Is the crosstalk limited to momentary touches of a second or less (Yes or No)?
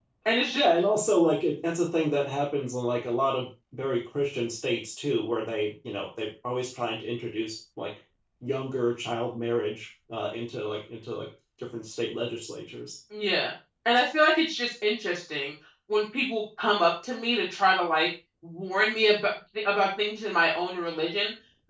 Yes